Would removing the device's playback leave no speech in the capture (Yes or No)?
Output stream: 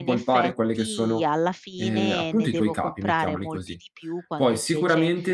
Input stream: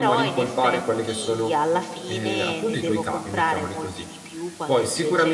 Yes